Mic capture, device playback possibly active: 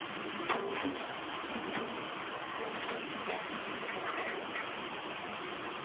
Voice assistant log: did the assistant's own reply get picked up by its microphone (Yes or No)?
No